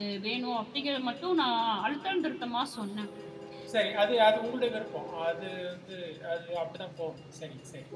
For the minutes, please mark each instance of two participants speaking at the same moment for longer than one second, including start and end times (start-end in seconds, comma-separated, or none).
none